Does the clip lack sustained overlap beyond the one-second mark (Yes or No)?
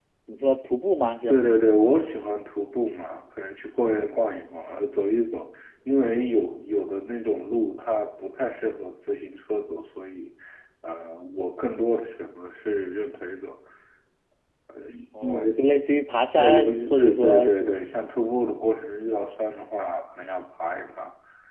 No